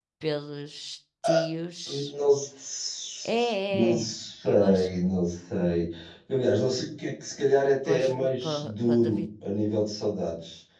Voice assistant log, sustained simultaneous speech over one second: present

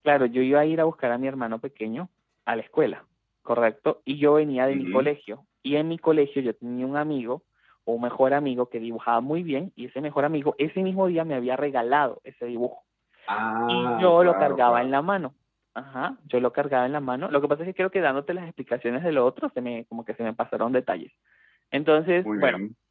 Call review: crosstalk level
present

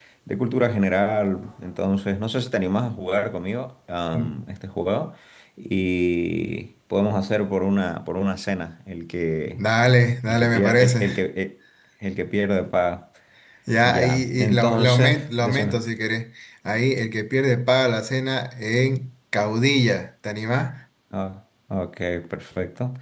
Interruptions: present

